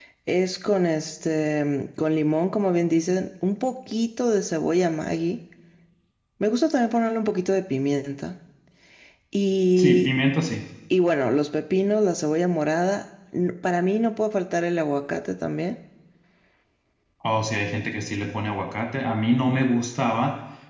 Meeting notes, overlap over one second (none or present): none